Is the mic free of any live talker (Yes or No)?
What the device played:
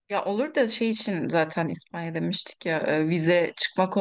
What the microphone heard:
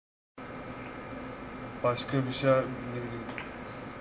No